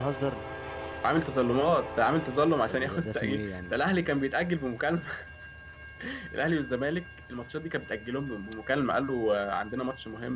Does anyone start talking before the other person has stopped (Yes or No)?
Yes